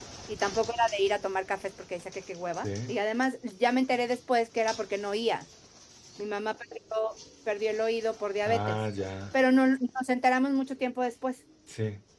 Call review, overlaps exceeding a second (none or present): none